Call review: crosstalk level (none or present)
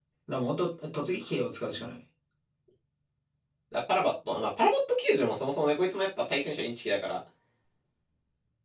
none